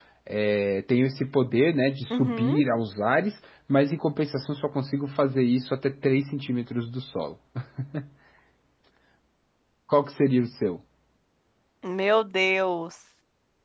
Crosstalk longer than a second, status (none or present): none